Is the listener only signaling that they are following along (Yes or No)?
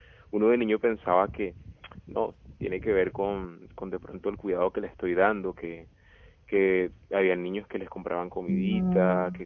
Yes